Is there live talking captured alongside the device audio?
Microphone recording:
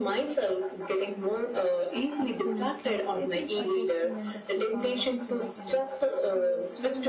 Yes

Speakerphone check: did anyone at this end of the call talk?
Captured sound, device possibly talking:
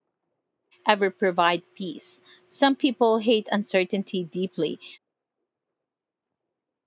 Yes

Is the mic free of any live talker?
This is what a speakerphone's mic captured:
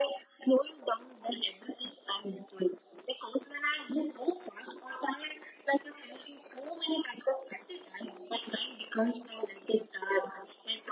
Yes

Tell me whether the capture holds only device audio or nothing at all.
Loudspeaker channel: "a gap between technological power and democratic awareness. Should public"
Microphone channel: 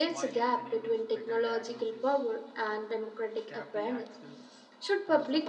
No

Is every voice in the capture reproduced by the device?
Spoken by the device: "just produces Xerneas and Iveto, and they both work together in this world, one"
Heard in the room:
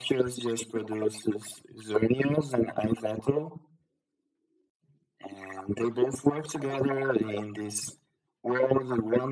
Yes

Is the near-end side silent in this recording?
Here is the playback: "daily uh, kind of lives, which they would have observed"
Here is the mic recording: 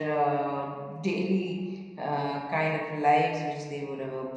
Yes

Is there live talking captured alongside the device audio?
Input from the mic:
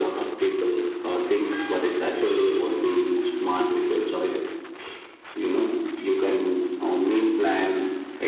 No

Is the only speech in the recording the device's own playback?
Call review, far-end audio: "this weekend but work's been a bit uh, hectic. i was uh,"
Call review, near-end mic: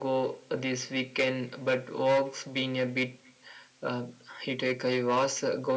Yes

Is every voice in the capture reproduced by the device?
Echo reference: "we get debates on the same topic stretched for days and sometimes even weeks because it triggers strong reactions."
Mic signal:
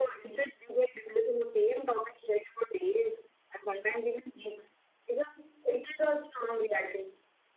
Yes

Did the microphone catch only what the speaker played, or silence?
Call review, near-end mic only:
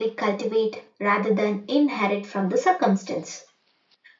Yes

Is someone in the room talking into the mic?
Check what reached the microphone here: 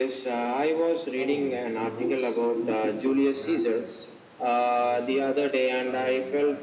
Yes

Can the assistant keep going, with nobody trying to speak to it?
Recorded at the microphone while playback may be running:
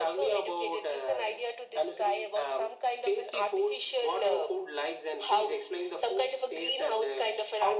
Yes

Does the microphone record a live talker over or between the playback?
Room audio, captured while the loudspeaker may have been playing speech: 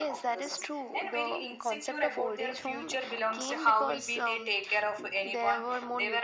No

